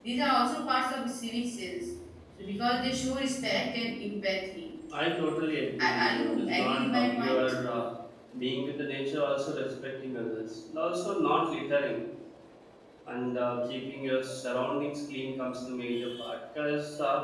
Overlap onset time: 5.8 s

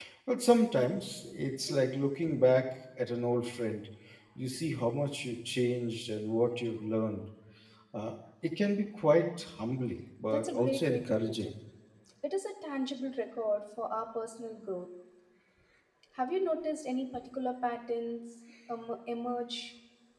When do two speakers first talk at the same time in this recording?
10.2 s

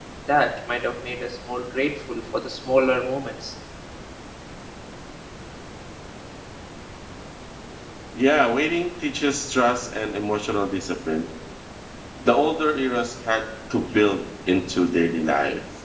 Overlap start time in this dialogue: none

